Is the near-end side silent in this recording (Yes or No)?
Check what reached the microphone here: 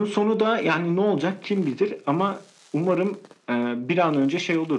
Yes